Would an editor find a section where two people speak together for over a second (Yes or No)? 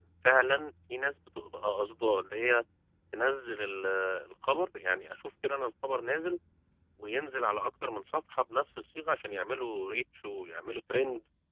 No